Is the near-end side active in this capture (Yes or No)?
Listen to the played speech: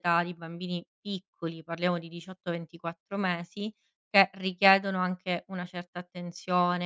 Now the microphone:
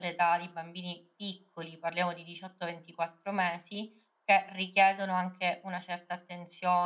No